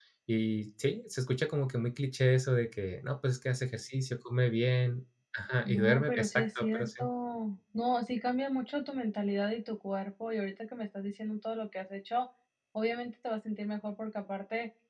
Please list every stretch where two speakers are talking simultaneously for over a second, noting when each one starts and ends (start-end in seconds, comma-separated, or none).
5.6-6.9